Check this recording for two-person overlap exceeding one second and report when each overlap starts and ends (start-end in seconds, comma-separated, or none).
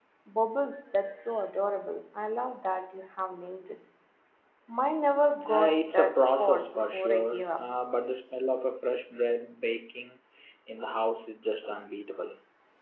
5.5-7.7